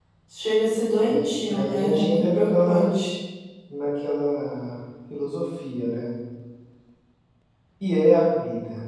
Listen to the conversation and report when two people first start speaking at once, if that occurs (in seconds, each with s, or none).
1.1 s